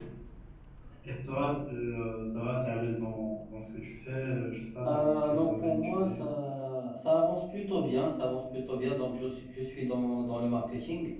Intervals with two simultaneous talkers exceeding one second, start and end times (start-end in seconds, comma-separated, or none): 4.8-6.2